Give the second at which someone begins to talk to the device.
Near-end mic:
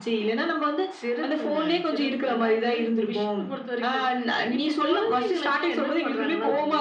none

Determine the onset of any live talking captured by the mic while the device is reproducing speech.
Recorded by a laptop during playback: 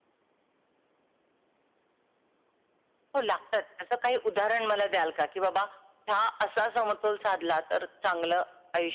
none

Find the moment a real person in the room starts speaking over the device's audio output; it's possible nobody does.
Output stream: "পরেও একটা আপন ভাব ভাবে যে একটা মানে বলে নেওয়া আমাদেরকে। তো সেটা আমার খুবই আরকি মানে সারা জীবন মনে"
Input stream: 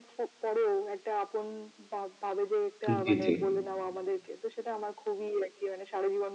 3 s

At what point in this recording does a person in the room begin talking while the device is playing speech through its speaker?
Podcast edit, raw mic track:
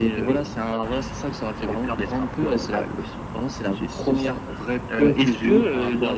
none

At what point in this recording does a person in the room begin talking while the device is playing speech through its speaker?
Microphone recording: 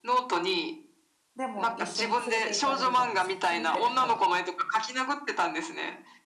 1 s

